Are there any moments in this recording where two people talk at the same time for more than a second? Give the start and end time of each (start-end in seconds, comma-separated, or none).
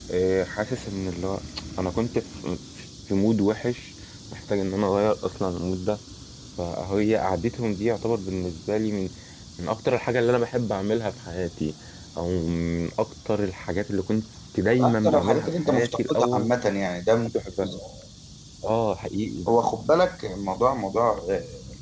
14.8-16.5